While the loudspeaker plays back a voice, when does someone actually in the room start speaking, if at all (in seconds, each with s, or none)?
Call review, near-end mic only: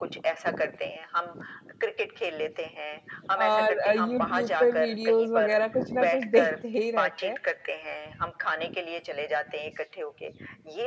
3.4 s